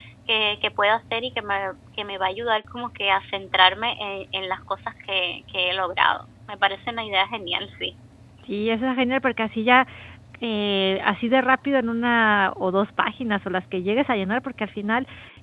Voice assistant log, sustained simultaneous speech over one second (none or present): none